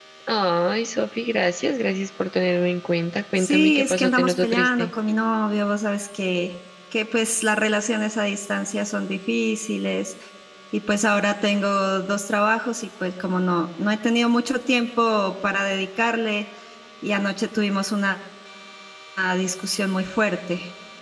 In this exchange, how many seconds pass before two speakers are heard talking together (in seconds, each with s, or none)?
3.4 s